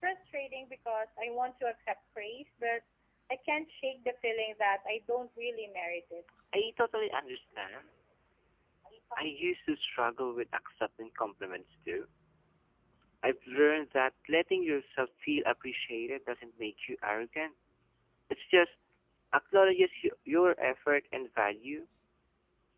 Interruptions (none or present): none